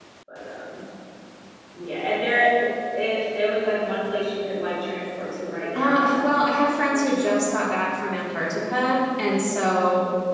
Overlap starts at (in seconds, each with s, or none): 5.8 s